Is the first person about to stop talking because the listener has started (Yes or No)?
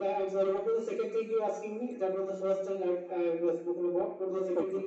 Yes